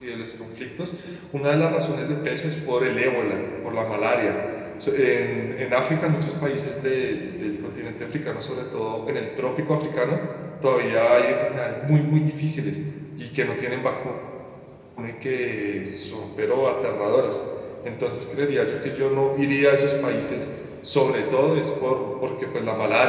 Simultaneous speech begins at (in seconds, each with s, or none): none